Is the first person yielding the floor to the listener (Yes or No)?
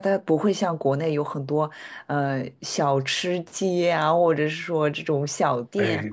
Yes